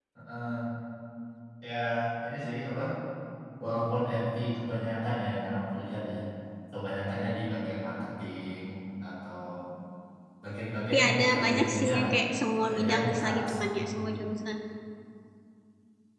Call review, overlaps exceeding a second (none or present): present